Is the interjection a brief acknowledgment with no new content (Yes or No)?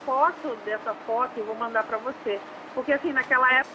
Yes